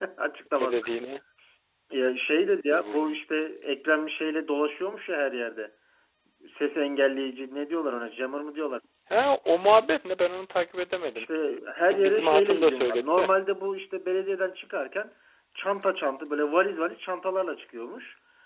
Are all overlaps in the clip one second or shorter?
No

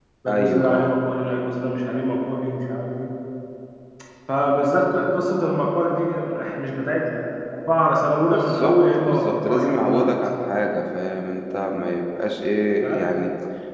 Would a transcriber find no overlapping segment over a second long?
No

